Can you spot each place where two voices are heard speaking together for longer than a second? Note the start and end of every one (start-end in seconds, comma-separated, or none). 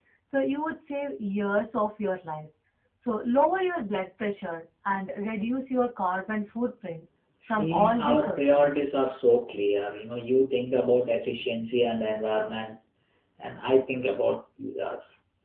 7.5-8.7